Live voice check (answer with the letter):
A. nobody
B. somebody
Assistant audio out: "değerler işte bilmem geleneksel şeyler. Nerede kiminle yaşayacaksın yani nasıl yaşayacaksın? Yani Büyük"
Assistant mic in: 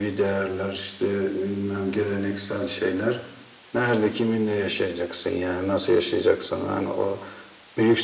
A